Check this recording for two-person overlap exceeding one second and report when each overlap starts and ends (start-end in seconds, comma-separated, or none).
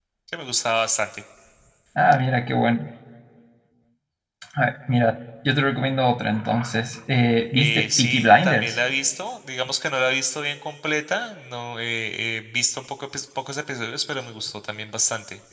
7.5-8.8